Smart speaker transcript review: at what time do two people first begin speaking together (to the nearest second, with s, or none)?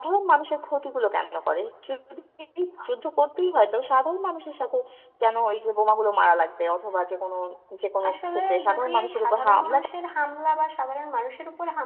8 s